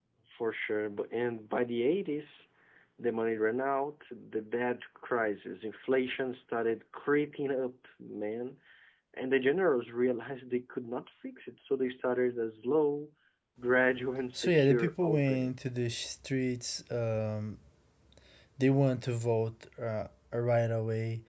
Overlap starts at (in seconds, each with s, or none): 14.3 s